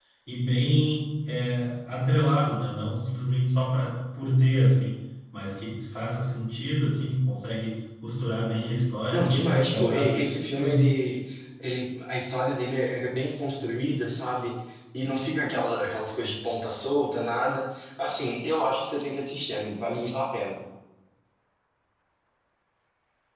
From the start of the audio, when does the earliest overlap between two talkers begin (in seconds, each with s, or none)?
9.1 s